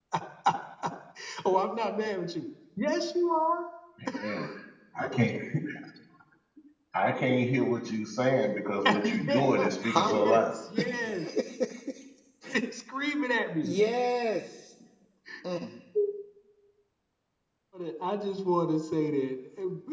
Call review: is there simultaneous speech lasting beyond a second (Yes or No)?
Yes